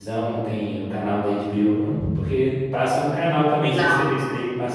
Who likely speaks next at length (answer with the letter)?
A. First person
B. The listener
A